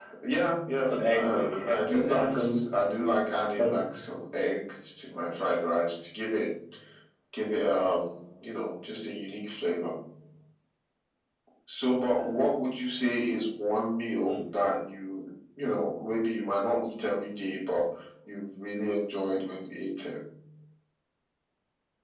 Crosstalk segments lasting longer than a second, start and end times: 1.1-2.6

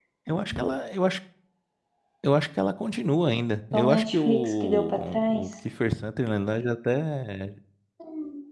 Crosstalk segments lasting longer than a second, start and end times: 3.7-5.5

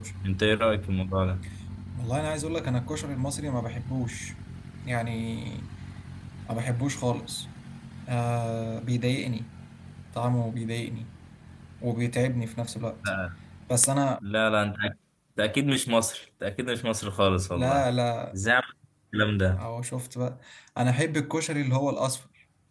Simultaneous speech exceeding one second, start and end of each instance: none

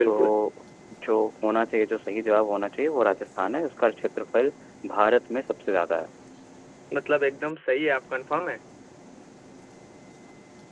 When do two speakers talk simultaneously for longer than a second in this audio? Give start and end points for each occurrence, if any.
none

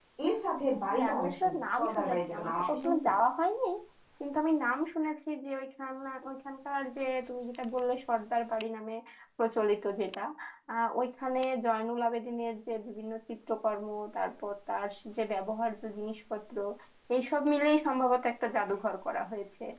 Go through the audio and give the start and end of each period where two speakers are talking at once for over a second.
0.9-3.1

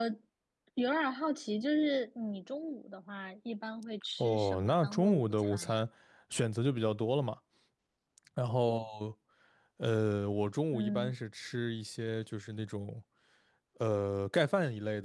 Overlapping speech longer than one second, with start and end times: 4.2-5.8

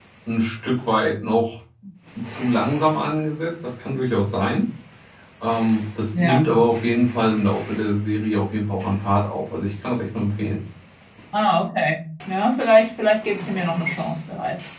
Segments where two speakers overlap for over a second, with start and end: none

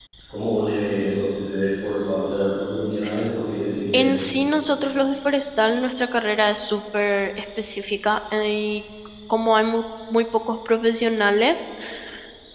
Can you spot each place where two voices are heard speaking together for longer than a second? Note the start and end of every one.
none

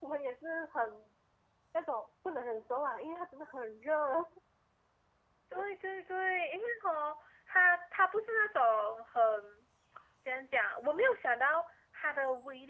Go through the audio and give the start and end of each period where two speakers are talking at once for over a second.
none

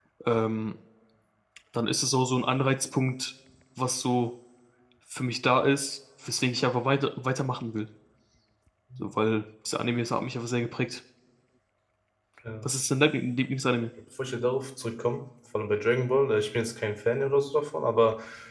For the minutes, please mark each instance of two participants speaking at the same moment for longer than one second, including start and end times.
none

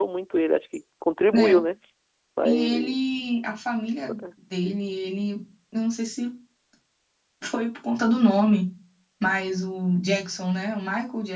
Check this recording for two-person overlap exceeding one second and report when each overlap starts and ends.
none

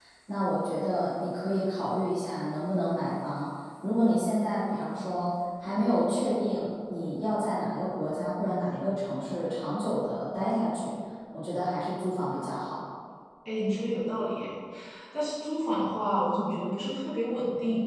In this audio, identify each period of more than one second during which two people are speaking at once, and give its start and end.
none

